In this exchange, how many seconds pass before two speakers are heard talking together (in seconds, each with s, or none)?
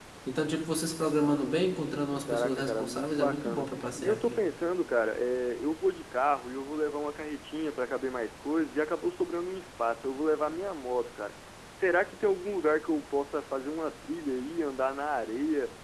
2.3 s